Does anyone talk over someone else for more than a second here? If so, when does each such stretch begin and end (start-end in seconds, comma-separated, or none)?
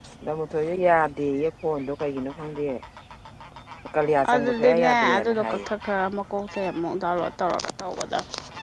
4.3-5.6